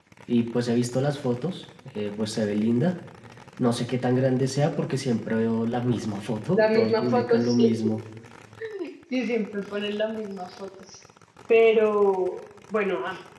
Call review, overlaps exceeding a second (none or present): present